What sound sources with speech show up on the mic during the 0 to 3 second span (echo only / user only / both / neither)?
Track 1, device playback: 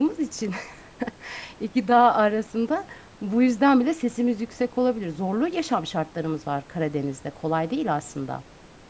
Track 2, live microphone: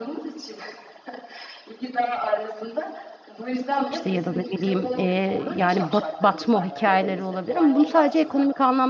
echo only